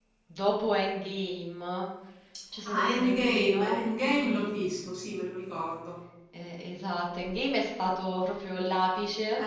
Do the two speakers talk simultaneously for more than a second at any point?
Yes, from 2.6 s

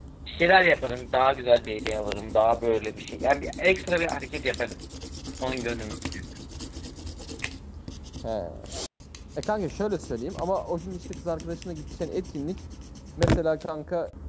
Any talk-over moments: No

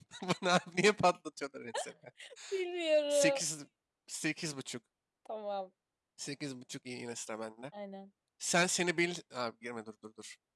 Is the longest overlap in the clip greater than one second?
No

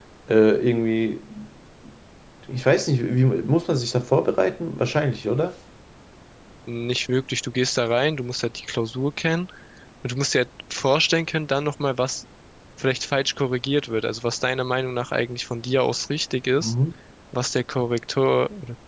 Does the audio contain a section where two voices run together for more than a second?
No

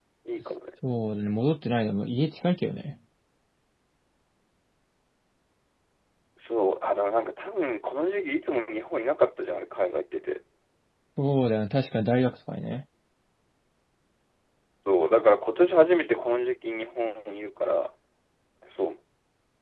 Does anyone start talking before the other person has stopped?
No

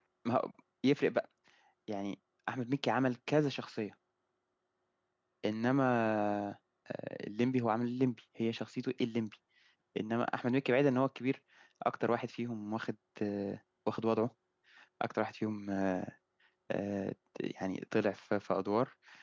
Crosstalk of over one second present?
No

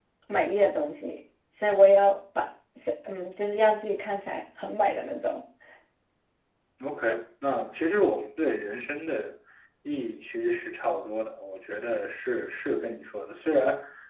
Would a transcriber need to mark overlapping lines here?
No

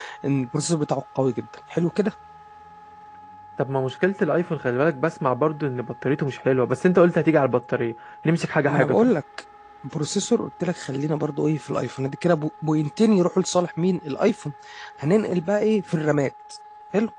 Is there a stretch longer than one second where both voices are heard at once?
No

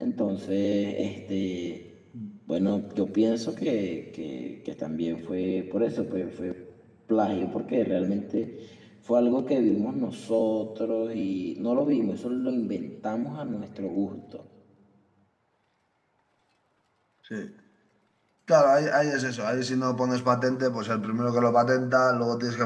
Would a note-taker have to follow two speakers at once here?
No

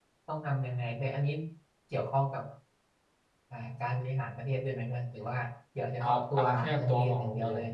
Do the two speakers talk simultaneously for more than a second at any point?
Yes, from 6.0 s

